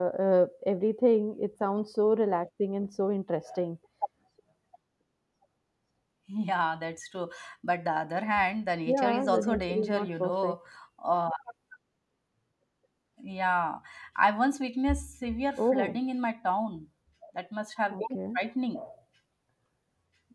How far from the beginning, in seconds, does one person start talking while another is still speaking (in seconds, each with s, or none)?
8.9 s